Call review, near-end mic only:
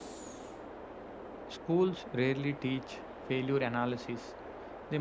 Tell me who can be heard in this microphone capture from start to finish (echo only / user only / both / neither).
user only